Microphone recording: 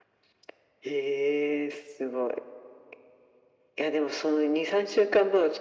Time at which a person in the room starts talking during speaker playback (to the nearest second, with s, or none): none